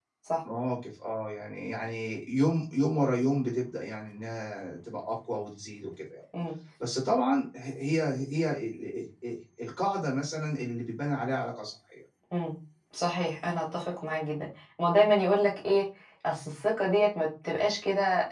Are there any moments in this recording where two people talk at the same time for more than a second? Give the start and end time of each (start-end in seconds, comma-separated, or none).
none